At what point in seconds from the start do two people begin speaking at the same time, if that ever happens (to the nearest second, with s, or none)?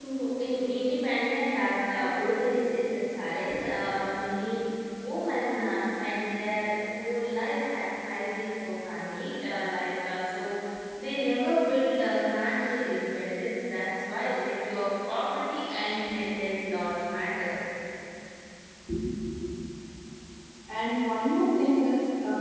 none